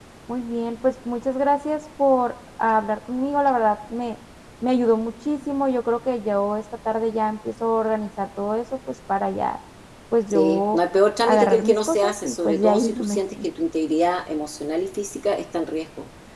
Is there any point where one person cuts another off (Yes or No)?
Yes